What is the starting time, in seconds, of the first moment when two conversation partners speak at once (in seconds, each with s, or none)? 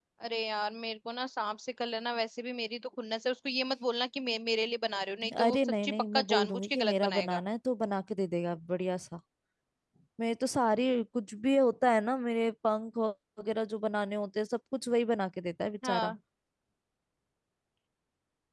5.5 s